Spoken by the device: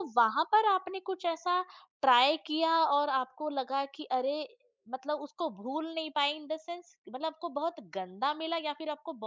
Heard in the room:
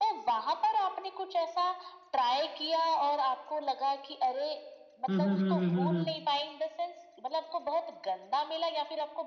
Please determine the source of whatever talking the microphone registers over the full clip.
both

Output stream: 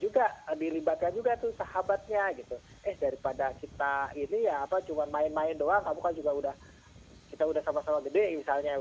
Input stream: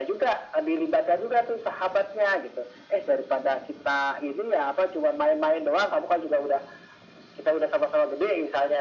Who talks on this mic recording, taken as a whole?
echo only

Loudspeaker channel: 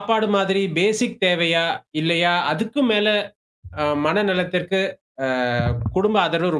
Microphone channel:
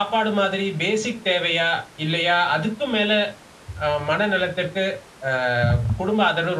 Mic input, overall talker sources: echo only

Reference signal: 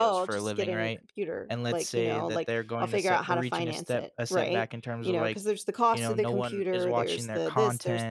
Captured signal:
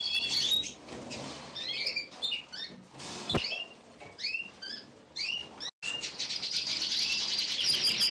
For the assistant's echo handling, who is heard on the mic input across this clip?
neither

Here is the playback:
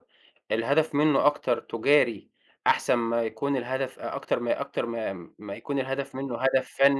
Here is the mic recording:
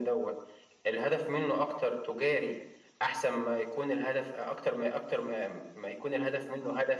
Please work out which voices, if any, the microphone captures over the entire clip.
echo only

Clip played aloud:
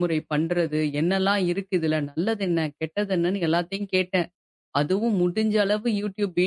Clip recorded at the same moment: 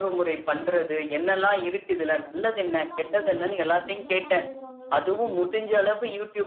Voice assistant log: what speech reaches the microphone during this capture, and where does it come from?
both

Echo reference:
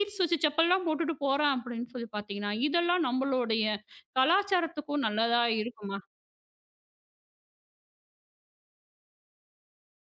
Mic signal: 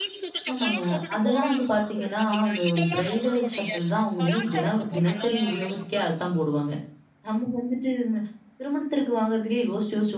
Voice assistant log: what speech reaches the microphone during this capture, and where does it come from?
both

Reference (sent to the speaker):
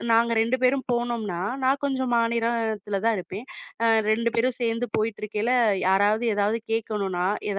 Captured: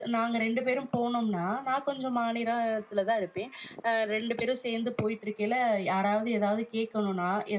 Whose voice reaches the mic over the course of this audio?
echo only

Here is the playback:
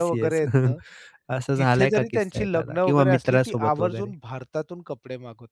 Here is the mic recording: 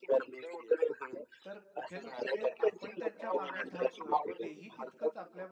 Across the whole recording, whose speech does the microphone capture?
both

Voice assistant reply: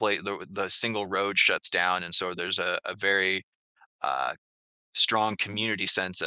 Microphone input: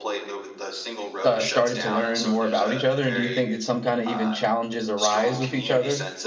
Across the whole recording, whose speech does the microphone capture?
both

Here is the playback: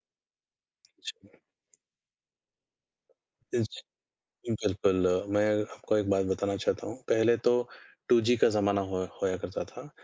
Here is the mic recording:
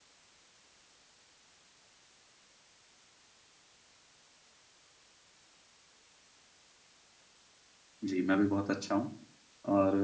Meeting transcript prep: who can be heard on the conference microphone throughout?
user only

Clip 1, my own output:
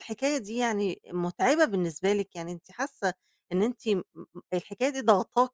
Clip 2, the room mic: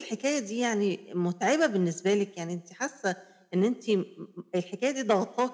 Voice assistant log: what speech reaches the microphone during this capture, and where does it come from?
echo only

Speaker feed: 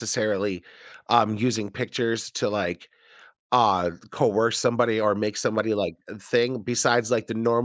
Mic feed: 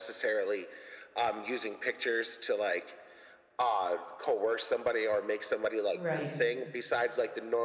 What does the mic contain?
both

